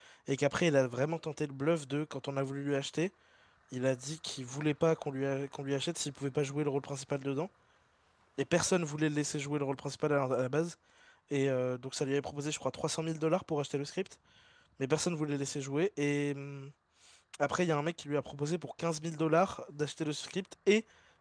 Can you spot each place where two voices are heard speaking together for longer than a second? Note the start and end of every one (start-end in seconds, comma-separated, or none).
none